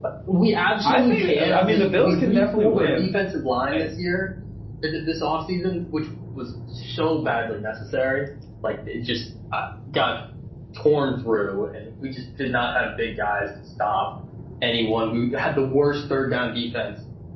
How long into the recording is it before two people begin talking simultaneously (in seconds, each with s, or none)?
0.8 s